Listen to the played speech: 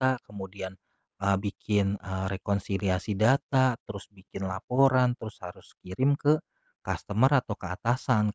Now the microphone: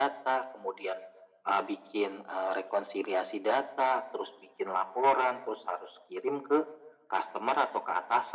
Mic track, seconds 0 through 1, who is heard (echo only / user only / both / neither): echo only